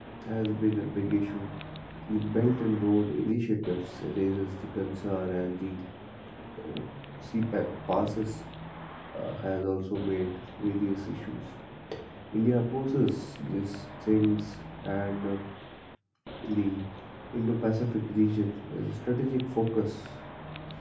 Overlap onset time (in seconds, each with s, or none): none